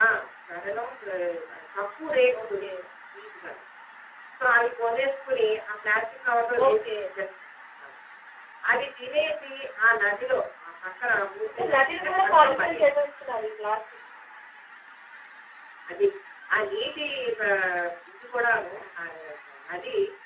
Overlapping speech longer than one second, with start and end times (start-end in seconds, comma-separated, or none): 11.5-12.8